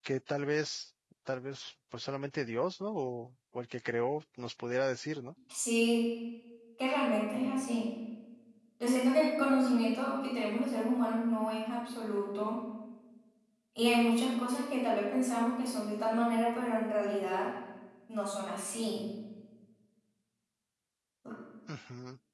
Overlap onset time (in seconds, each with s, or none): none